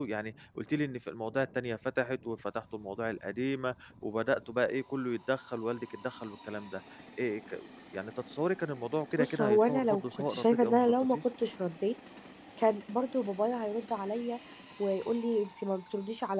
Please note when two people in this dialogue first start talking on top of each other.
9.2 s

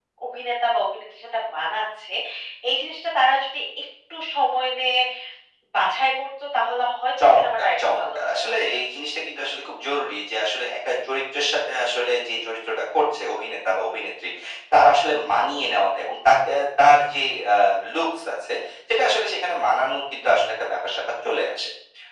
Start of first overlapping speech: 7.2 s

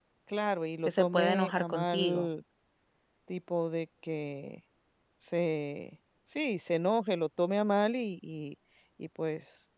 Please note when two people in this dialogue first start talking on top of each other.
0.8 s

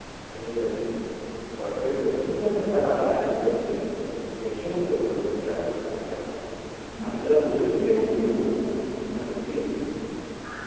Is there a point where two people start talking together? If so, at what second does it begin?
7.0 s

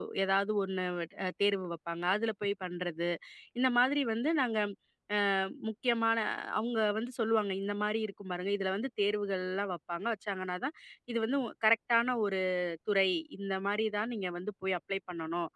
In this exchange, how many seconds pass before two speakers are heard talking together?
none

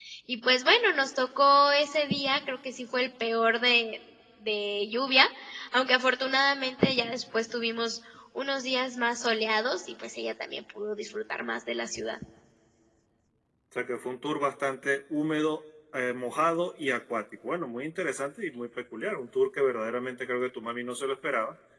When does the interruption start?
none

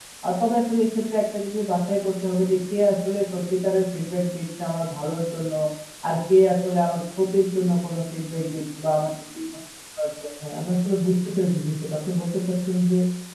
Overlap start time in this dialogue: none

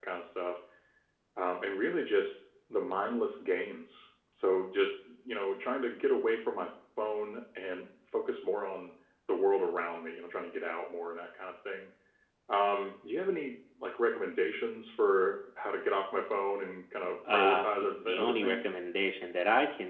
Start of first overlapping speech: 17.2 s

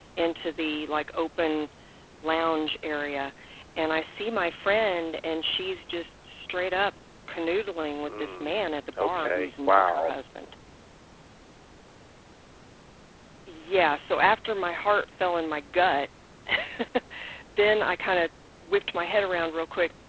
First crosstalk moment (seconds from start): 8.0 s

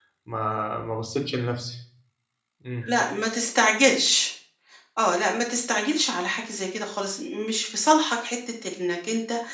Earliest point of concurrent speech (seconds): none

